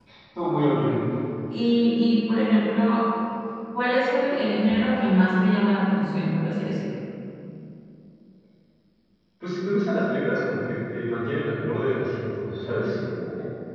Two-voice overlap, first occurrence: none

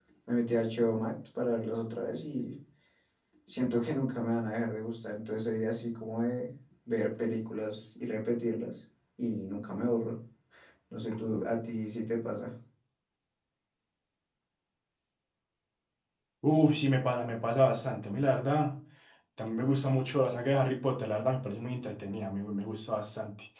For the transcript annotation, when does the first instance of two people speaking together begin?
none

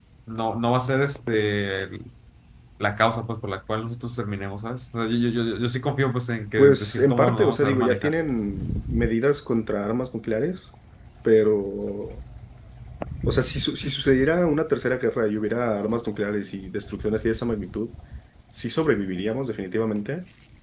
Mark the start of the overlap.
6.6 s

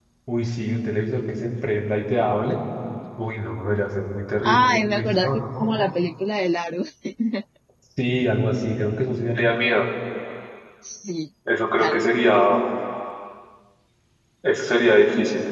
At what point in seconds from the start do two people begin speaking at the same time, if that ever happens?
4.5 s

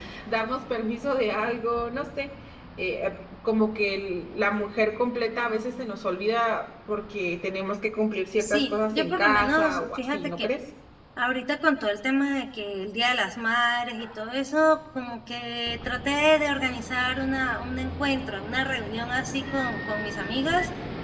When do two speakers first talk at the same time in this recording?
8.4 s

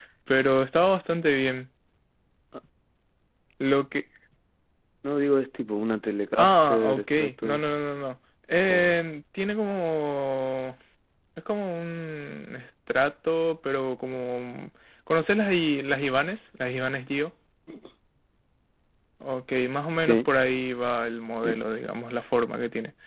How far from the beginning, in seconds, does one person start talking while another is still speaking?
6.4 s

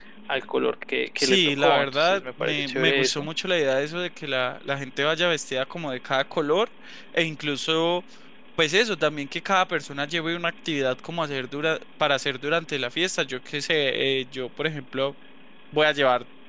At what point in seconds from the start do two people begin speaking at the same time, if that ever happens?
1.2 s

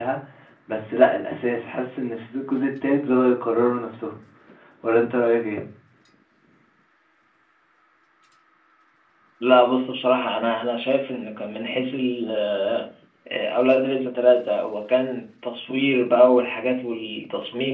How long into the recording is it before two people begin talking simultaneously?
none

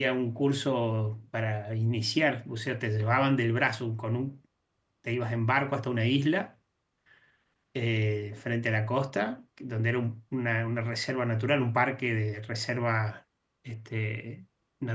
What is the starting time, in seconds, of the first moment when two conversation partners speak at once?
none

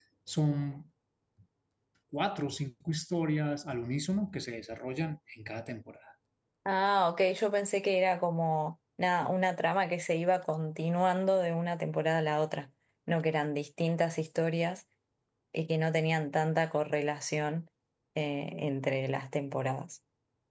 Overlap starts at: none

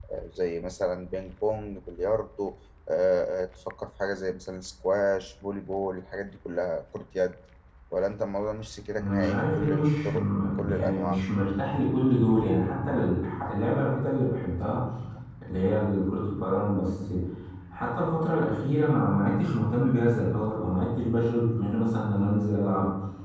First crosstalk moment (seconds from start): 9.0 s

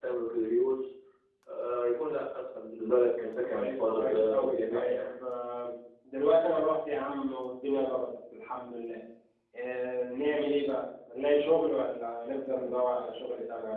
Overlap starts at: 3.5 s

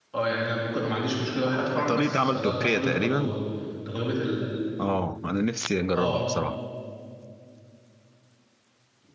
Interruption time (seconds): 1.9 s

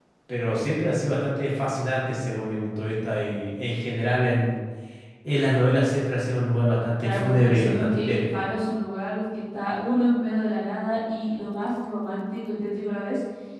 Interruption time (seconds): 7.0 s

